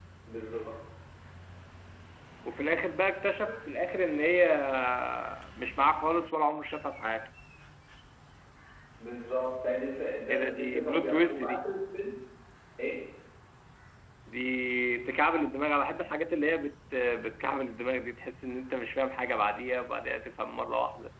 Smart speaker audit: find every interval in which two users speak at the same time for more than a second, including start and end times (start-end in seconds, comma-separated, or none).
10.3-11.6